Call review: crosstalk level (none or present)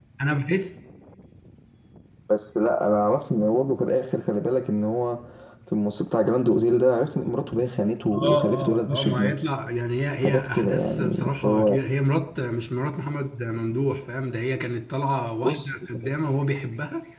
present